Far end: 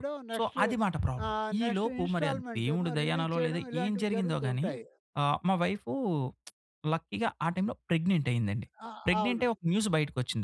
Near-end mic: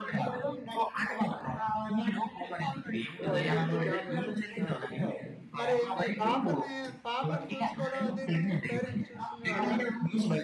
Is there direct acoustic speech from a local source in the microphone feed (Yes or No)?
Yes